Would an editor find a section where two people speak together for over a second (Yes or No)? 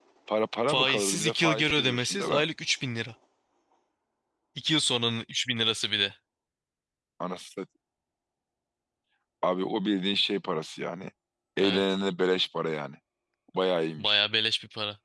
Yes